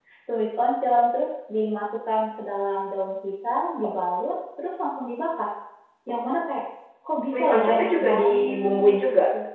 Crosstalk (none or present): present